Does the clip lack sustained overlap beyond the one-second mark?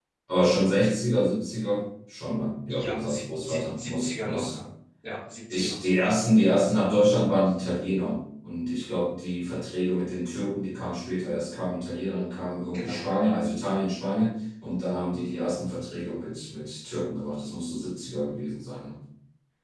No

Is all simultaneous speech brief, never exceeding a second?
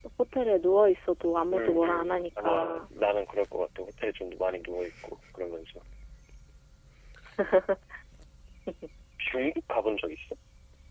No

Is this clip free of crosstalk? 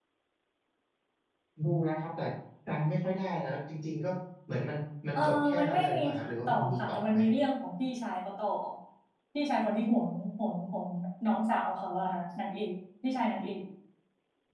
No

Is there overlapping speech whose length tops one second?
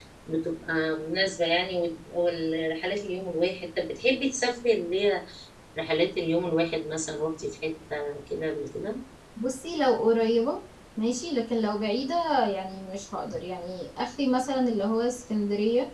No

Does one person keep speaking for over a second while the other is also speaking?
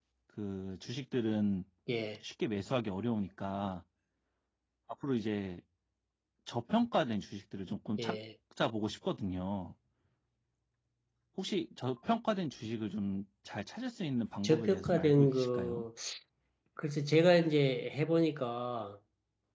Yes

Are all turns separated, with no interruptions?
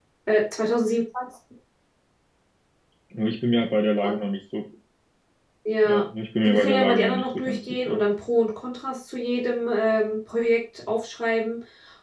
No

